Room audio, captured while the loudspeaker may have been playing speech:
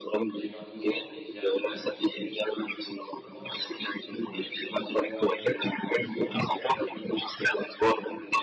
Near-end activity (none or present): present